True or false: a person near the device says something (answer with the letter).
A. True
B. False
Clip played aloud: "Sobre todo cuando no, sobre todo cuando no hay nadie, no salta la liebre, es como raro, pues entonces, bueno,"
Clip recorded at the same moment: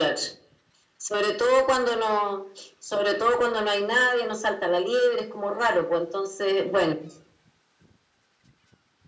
B